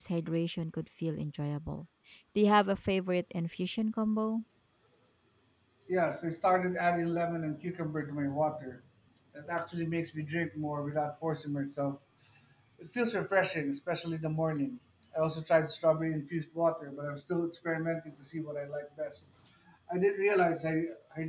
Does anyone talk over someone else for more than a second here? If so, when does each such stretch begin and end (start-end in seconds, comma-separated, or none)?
none